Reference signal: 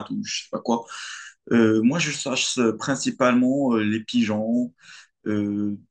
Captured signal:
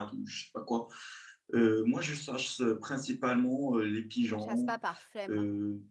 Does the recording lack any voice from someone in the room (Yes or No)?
No